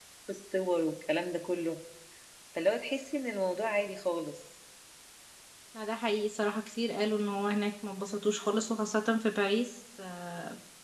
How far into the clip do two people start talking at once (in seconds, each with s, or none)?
none